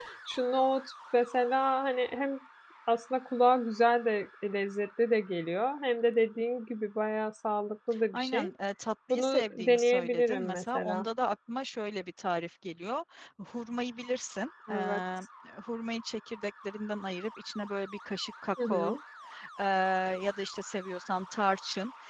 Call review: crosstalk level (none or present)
present